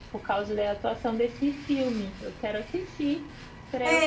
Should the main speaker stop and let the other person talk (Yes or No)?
Yes